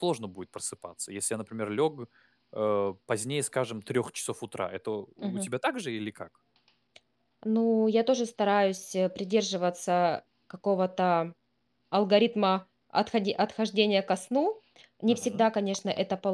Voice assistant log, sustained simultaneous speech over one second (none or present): none